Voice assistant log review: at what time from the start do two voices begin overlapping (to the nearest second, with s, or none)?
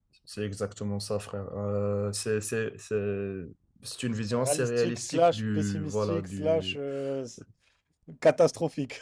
4 s